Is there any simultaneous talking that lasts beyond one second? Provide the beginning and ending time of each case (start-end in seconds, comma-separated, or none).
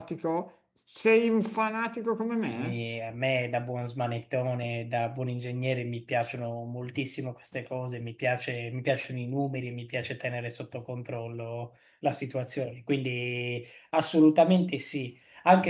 none